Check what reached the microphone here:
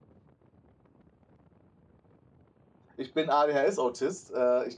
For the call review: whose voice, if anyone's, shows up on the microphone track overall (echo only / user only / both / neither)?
user only